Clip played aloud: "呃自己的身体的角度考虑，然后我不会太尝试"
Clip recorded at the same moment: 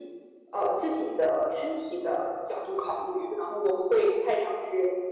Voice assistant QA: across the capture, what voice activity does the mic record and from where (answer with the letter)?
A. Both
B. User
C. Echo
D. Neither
C